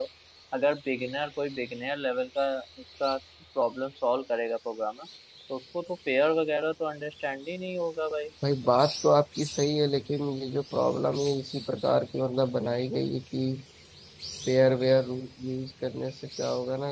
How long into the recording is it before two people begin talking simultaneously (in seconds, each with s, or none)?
none